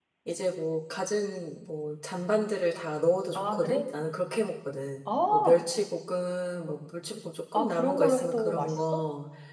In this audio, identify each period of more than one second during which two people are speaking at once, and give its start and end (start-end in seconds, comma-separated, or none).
7.5-8.8